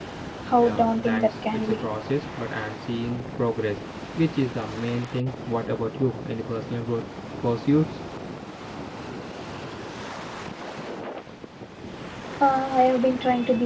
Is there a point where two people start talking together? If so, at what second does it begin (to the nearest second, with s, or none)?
1 s